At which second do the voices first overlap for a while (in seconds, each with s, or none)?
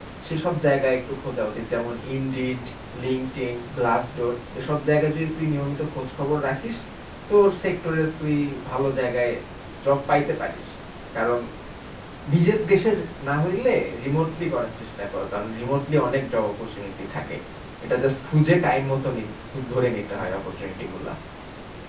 none